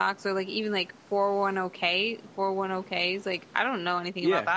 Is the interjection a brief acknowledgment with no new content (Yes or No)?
No